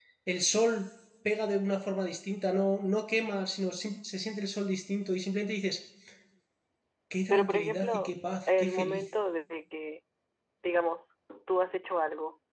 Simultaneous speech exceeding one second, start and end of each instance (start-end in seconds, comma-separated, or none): 7.3-9.1